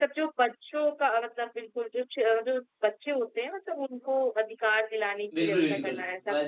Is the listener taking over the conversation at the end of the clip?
Yes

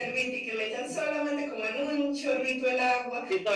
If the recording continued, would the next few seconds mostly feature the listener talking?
Yes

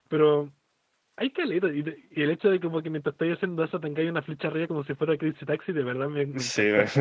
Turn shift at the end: Yes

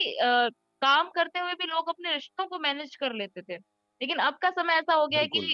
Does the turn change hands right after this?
No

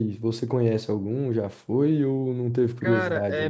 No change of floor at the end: No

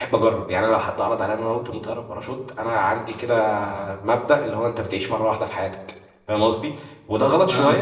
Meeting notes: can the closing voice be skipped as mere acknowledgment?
Yes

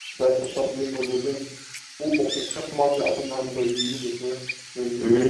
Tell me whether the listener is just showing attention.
Yes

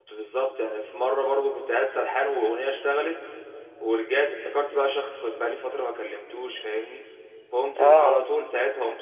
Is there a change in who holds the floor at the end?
No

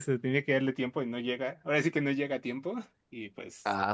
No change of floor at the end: No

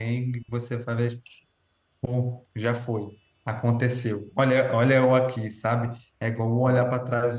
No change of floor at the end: Yes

